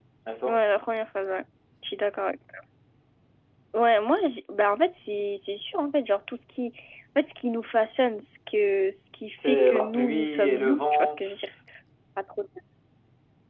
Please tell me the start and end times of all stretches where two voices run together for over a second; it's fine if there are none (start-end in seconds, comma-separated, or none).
9.4-11.2